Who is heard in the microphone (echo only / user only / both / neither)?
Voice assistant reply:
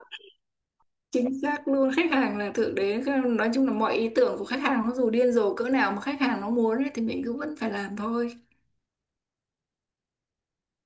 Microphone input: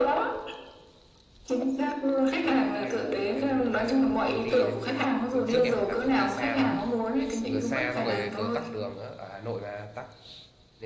both